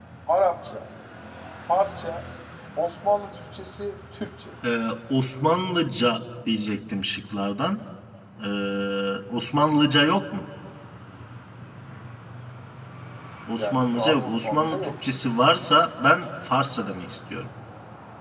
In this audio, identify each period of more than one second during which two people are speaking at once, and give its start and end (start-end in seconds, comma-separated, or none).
13.6-14.9